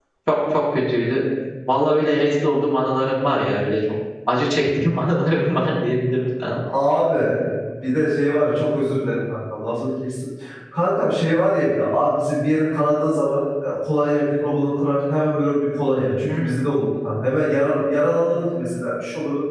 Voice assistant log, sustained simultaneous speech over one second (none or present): none